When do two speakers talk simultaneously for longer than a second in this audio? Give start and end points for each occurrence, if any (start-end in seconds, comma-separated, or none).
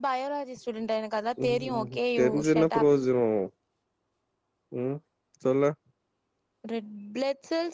1.4-2.9